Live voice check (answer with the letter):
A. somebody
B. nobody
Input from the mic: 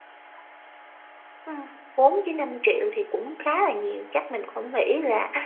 A